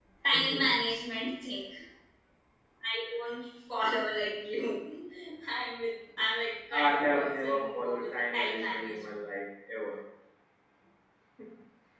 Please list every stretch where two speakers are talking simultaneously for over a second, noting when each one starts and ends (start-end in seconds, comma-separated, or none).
6.7-9.0